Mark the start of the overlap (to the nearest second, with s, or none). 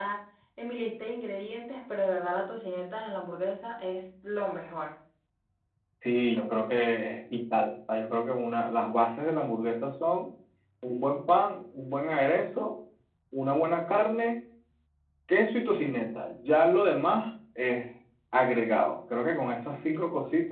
none